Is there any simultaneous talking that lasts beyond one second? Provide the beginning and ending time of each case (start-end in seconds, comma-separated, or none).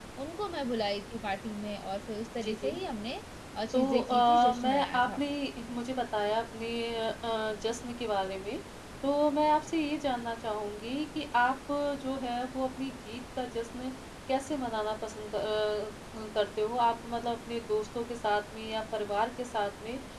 3.7-5.2